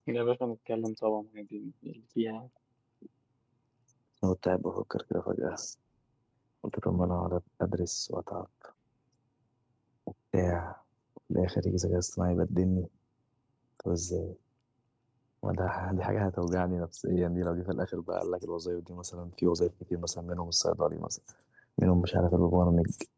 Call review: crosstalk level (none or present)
none